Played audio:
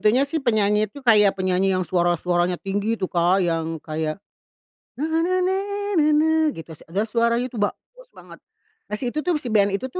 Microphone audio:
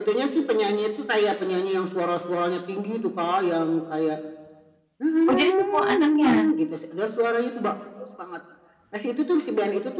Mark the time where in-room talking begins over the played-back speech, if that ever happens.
5.2 s

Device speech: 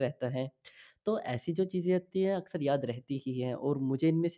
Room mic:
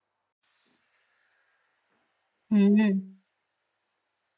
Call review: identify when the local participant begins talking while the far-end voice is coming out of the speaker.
2.5 s

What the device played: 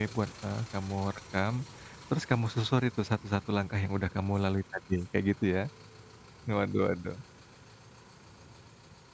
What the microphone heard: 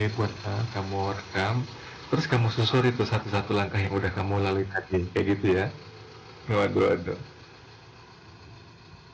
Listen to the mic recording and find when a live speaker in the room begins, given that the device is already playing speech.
none

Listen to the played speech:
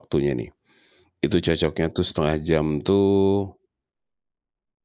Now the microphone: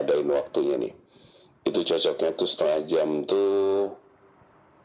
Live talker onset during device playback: none

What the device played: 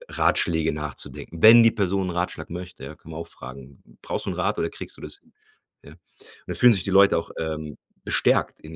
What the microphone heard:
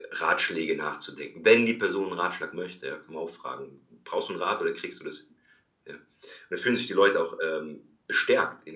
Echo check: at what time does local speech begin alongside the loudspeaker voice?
none

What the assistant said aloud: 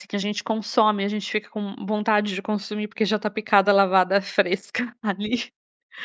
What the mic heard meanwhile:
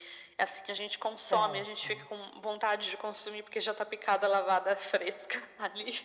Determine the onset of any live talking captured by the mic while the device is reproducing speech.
1.1 s

